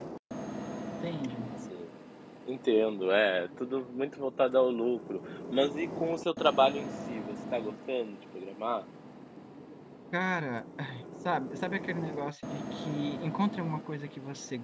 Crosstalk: none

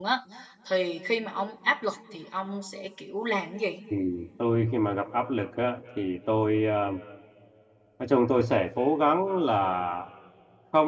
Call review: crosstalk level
none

